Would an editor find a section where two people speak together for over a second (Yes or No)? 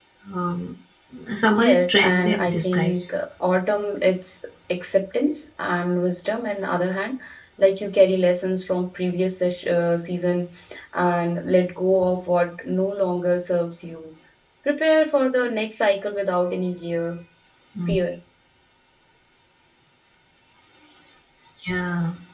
Yes